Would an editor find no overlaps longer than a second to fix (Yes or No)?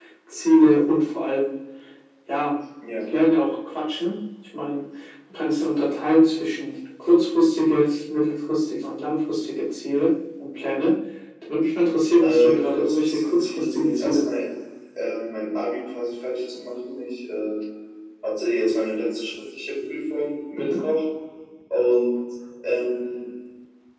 No